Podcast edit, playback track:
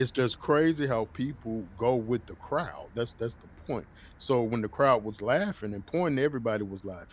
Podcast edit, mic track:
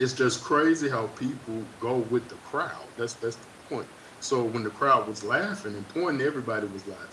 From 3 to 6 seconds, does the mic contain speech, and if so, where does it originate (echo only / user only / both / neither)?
echo only